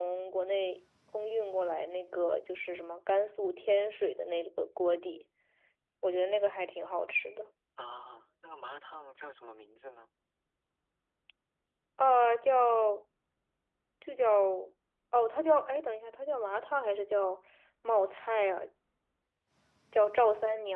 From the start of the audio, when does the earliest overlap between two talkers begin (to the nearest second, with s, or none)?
none